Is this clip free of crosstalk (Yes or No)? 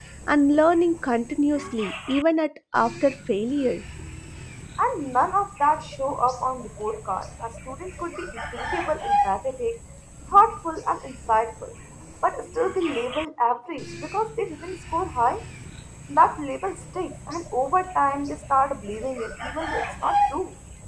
Yes